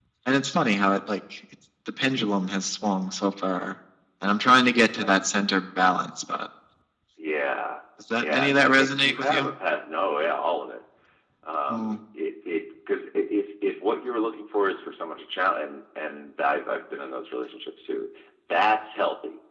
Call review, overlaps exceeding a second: present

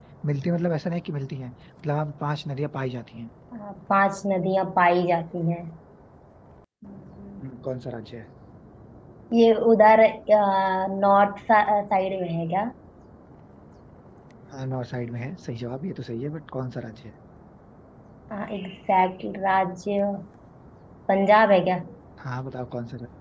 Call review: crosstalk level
none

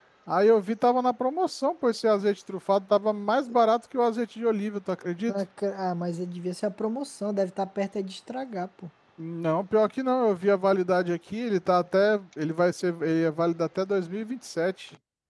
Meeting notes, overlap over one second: none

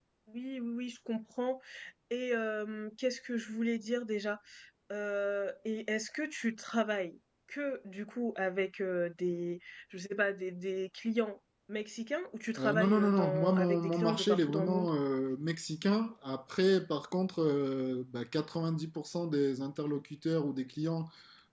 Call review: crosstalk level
present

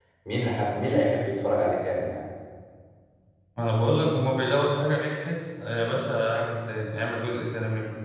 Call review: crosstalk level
none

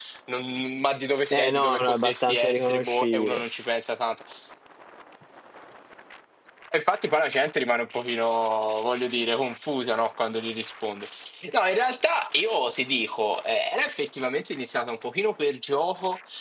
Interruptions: present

